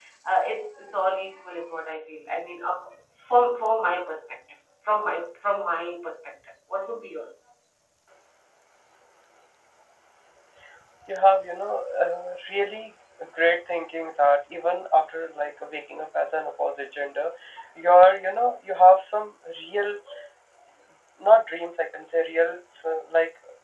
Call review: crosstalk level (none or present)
none